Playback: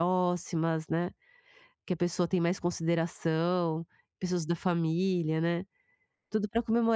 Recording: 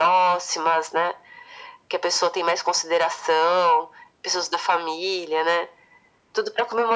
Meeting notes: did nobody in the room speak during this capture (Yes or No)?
Yes